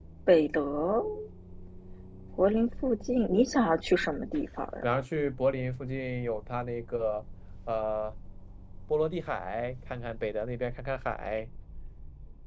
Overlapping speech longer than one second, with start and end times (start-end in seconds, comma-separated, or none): none